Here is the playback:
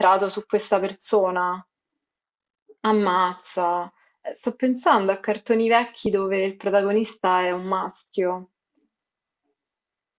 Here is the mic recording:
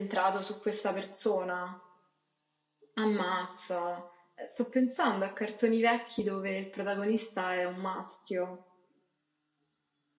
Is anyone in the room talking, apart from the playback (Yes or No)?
No